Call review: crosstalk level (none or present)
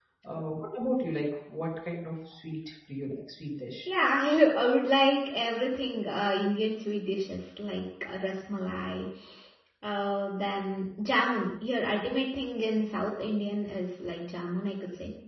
none